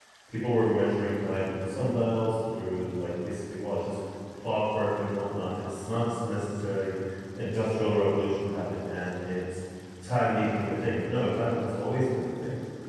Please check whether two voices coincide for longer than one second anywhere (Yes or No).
No